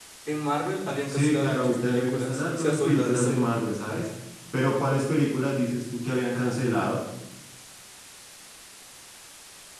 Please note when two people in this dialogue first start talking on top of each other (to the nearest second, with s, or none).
1 s